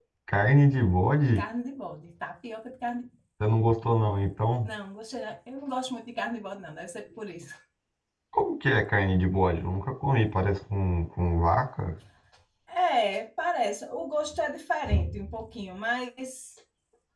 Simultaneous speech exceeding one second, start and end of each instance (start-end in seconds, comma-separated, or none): none